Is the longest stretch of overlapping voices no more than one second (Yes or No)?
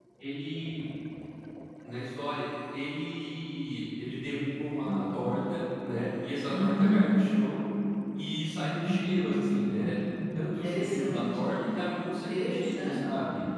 No